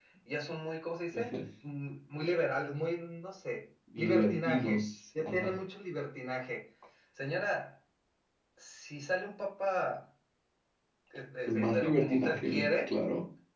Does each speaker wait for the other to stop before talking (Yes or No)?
No